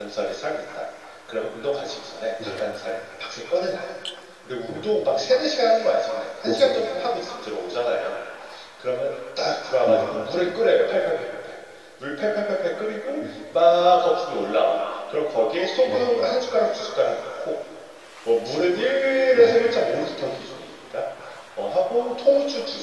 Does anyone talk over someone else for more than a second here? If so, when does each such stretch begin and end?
none

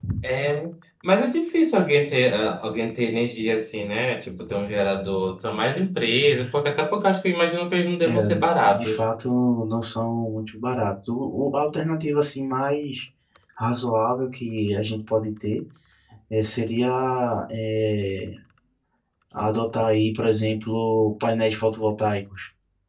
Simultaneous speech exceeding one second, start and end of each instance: none

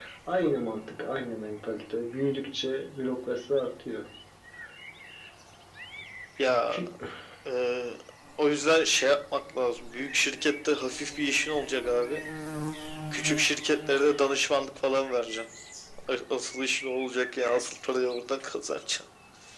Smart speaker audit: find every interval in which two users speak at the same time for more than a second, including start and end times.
none

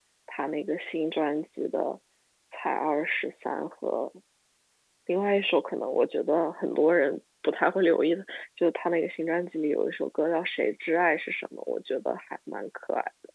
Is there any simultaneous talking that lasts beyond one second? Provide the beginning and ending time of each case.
none

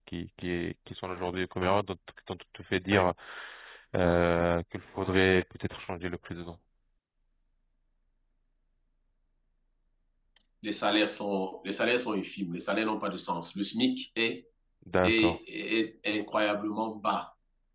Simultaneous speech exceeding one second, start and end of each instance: none

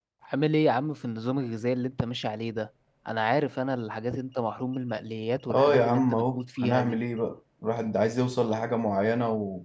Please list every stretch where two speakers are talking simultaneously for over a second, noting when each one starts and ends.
5.5-7.0

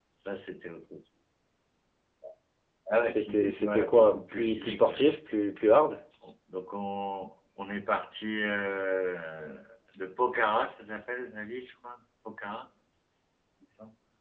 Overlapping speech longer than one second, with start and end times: 3.0-5.1

